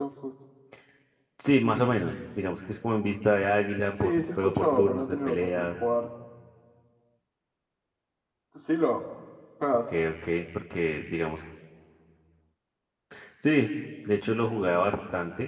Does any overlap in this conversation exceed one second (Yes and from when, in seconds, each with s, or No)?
Yes, from 4.0 s